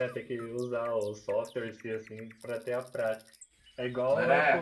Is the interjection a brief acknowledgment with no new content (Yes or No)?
Yes